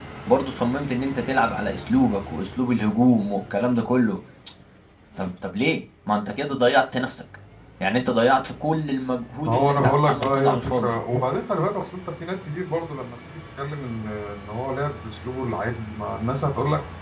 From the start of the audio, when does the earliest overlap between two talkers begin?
9.5 s

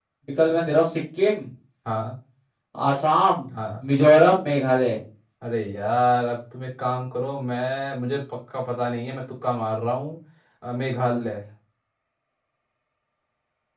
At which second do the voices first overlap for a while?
none

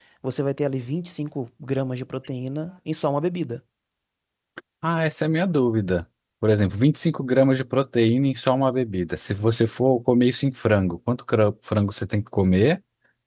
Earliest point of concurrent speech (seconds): none

